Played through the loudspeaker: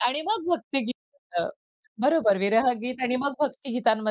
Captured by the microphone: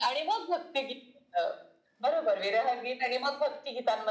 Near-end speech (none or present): none